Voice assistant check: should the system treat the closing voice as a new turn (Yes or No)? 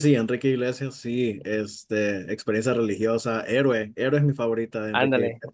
Yes